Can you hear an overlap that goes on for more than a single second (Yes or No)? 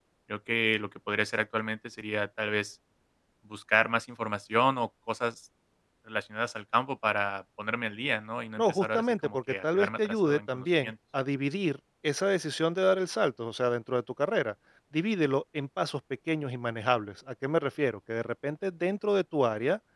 Yes